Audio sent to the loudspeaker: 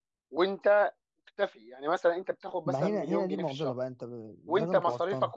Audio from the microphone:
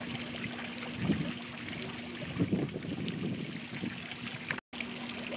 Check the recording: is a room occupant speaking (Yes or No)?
No